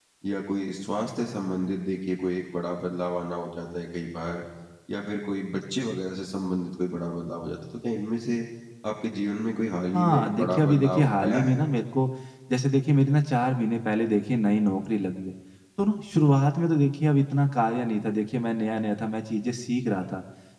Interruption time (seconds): 9.9 s

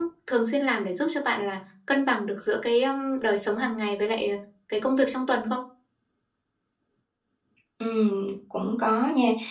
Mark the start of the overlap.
none

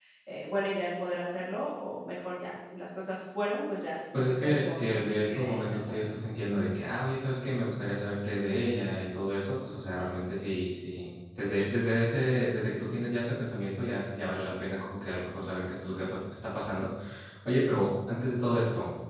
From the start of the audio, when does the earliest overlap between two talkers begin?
4.1 s

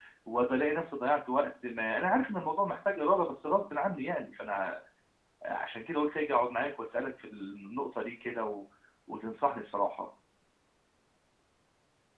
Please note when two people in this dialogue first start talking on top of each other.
none

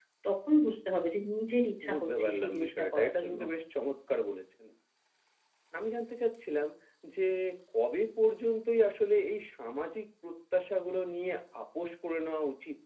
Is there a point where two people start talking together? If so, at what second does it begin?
1.8 s

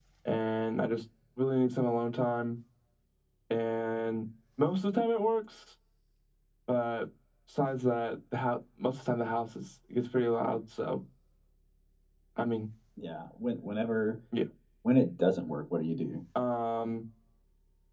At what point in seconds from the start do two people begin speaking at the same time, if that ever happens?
none

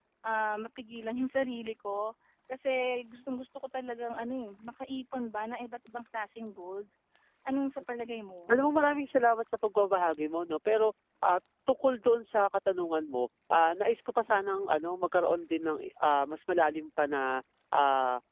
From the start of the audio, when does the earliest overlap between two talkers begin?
none

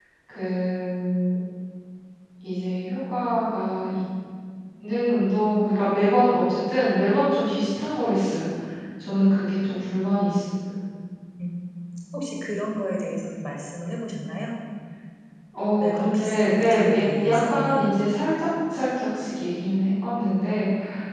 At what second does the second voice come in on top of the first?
15.8 s

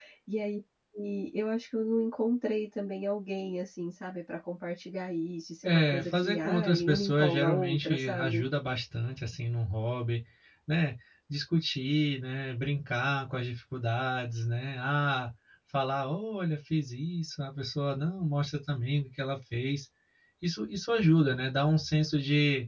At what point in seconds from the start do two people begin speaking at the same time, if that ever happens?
5.6 s

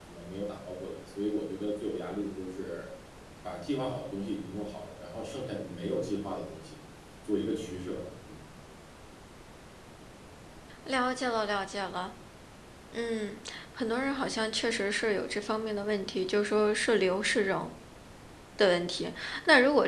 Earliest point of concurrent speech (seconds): none

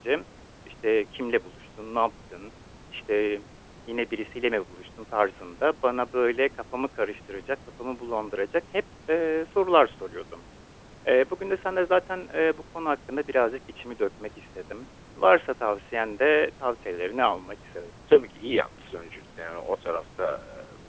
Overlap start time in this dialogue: none

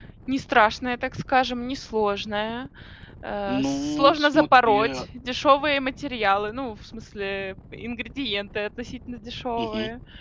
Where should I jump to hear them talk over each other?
3.5 s

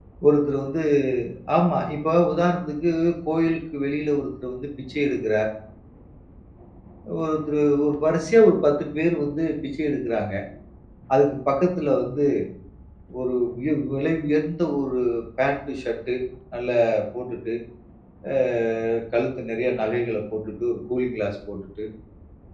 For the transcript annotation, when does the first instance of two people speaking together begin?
none

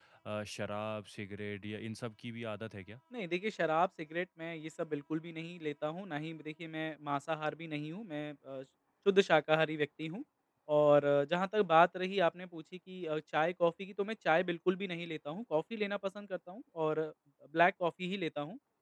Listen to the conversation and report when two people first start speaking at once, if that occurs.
none

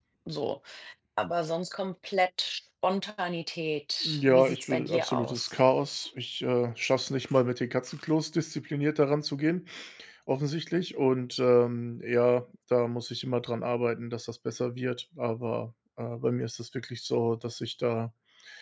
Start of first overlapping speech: 4.0 s

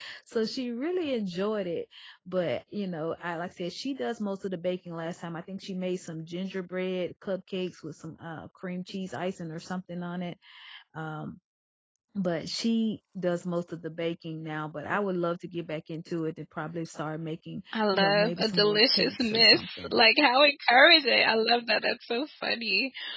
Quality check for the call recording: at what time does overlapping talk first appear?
17.7 s

